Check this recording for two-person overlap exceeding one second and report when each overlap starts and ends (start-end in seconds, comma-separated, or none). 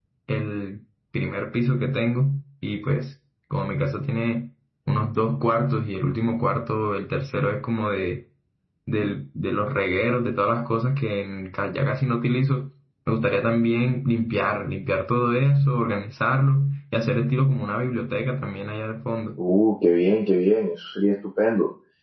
none